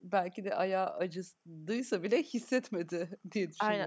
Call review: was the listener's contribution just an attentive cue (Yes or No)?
No